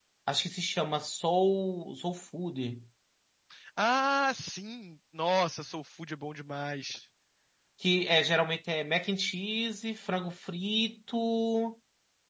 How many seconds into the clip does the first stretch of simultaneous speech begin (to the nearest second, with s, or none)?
none